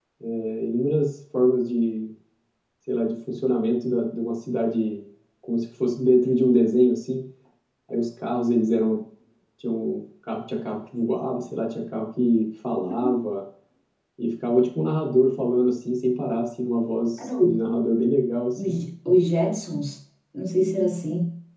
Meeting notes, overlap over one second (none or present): none